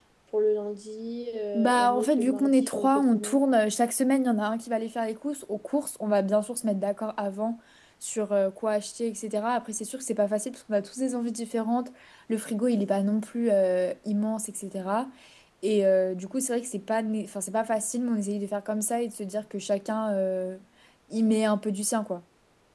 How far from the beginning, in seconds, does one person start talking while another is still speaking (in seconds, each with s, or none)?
1.5 s